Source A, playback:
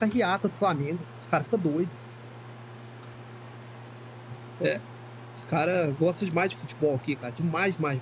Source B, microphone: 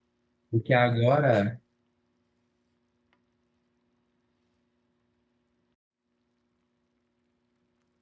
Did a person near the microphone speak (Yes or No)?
Yes